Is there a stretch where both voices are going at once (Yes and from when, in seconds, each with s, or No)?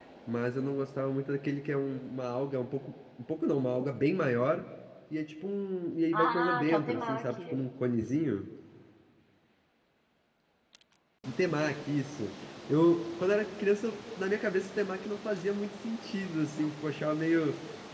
Yes, from 6.1 s